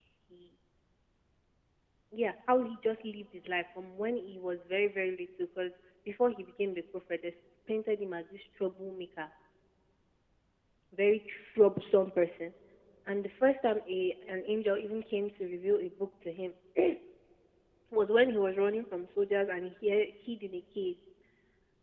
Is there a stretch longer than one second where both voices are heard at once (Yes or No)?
No